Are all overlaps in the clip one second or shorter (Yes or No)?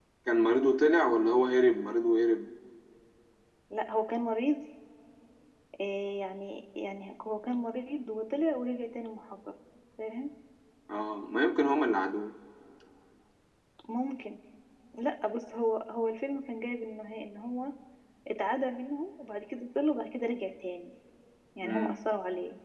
Yes